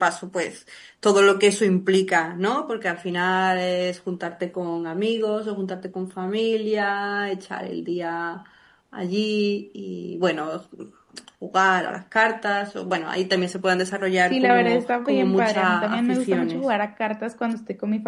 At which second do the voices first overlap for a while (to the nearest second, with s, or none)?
14 s